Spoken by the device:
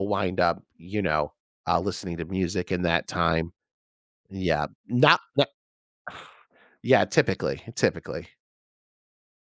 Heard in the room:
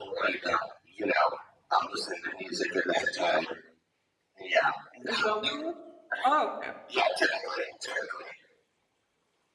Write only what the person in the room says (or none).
Is that what it was? Oh, okay.